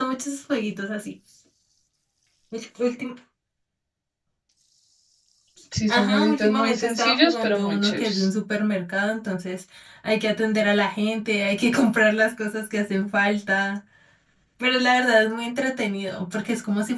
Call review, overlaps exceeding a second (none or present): present